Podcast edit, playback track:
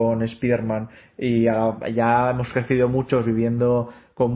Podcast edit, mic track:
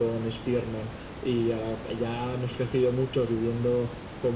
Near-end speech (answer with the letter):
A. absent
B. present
A